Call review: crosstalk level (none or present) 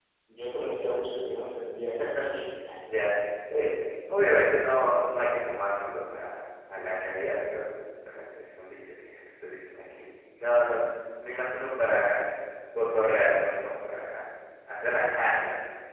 none